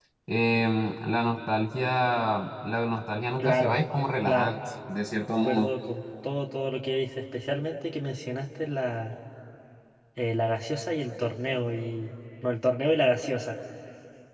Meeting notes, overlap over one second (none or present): none